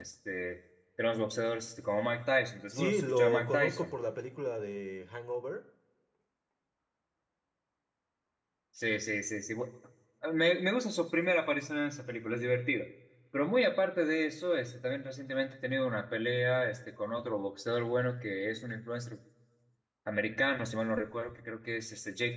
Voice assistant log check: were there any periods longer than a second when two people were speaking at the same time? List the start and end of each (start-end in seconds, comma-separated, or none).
2.7-3.9